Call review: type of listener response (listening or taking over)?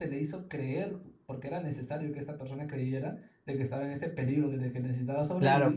taking over